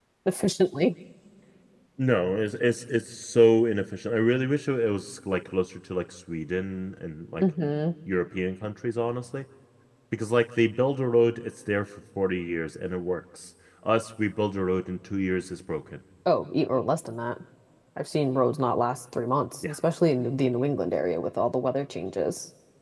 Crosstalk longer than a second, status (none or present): none